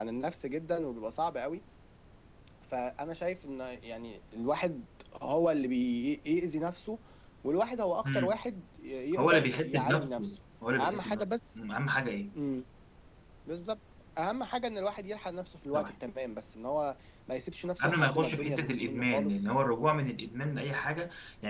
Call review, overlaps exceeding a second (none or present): present